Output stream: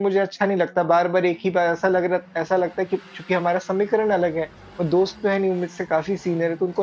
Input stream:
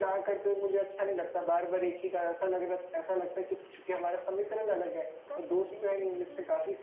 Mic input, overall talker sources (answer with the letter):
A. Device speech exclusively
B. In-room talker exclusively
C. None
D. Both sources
D